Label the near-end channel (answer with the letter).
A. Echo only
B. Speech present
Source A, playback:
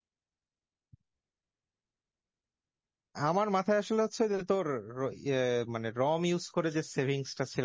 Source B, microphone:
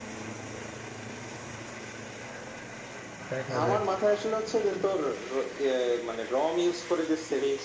B